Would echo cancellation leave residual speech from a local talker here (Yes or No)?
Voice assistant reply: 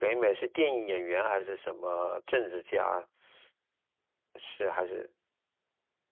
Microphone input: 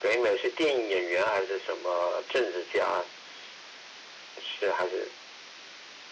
No